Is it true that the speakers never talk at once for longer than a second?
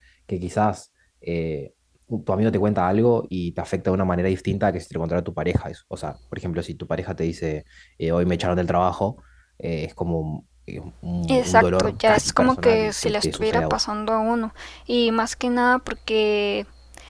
No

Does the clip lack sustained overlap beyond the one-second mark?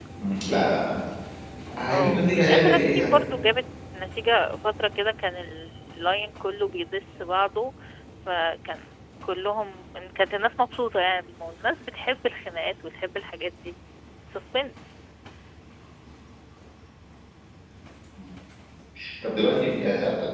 No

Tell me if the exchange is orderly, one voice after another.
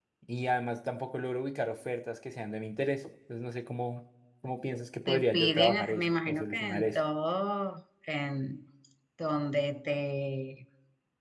No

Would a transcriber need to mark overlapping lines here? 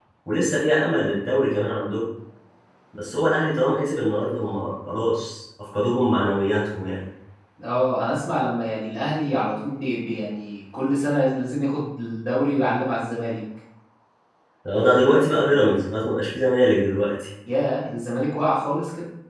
No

